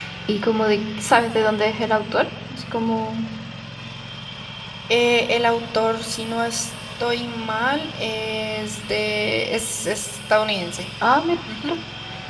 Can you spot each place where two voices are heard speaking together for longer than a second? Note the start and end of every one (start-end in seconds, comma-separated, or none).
none